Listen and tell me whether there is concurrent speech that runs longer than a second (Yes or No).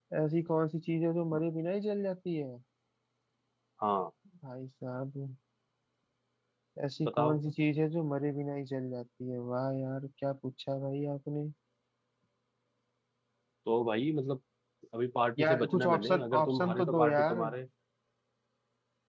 Yes